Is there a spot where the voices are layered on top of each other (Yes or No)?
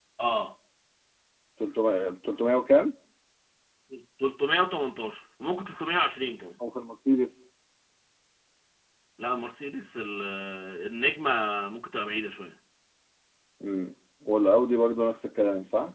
No